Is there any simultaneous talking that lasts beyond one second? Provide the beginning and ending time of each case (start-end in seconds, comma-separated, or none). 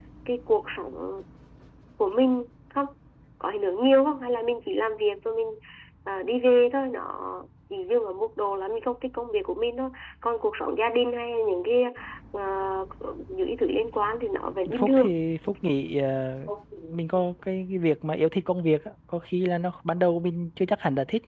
none